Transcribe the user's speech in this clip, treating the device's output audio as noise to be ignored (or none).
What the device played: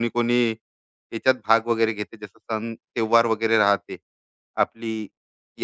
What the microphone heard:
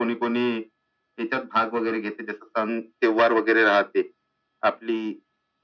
none